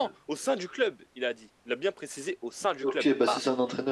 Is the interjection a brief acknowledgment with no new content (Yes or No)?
No